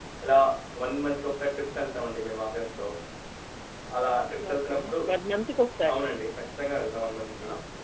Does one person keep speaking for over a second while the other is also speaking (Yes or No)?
No